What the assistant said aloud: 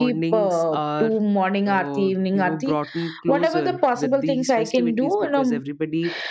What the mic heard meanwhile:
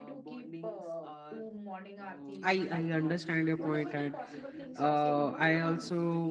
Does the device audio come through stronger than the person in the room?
No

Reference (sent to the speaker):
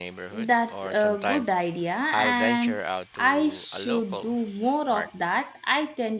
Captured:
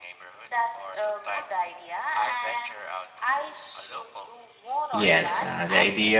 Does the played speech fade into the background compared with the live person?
Yes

